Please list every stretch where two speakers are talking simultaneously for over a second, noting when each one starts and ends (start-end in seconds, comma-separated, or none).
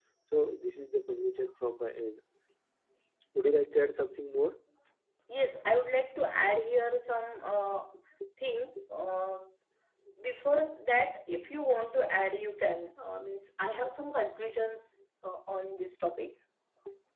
none